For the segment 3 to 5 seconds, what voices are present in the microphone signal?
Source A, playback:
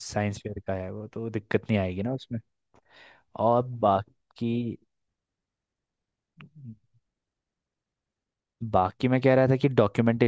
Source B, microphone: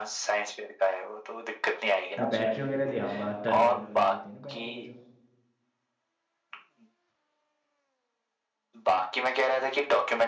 both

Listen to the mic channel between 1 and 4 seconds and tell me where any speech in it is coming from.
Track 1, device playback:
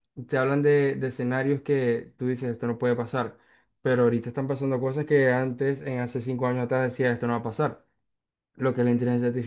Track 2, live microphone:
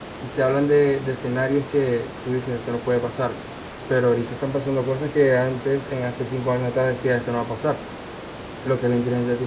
echo only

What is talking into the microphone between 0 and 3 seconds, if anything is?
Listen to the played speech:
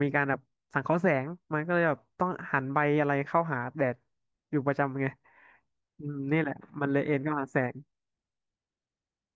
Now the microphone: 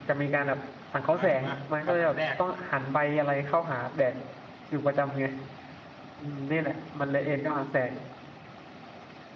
both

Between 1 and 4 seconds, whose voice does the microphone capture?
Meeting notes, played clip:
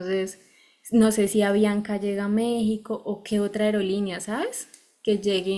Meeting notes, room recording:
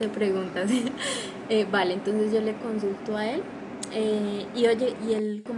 user only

